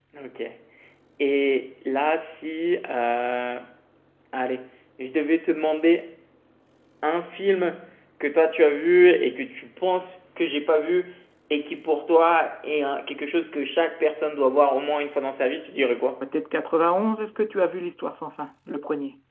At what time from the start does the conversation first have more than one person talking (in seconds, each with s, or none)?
none